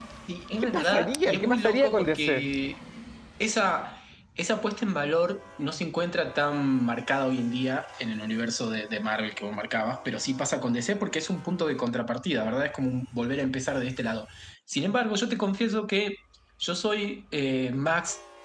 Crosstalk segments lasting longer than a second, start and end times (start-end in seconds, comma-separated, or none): 0.7-2.5